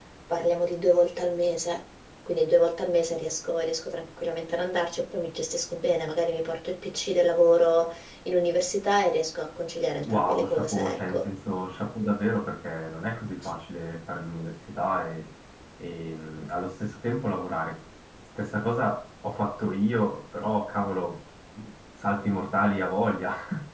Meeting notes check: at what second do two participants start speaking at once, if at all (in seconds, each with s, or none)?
10.0 s